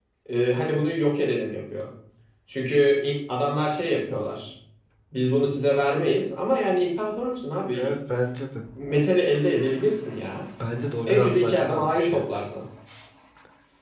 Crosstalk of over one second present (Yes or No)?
Yes